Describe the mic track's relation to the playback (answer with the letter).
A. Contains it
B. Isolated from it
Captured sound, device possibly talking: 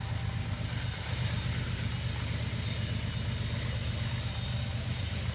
B